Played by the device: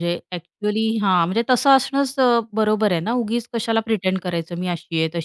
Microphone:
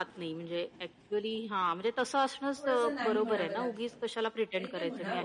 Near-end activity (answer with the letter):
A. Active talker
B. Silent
A